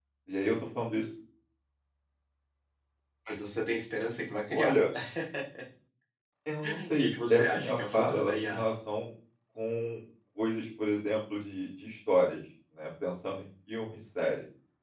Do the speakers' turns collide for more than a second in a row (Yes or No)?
Yes